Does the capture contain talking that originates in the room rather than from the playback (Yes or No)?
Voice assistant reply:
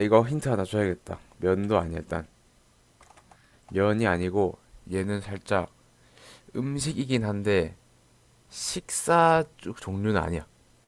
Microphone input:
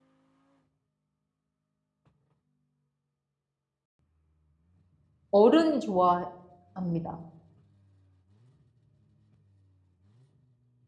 Yes